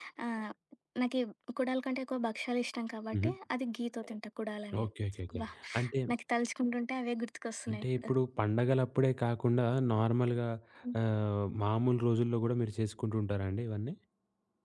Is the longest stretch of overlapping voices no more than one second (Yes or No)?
Yes